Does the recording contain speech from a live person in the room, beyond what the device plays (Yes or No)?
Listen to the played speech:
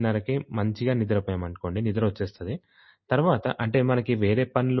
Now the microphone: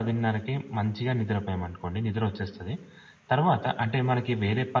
No